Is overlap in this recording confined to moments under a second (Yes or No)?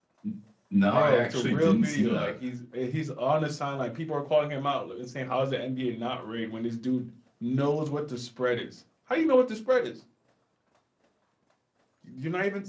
No